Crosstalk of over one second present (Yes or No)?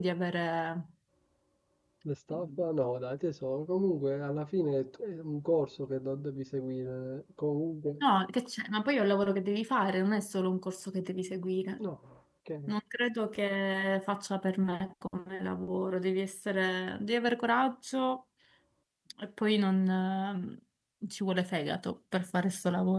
No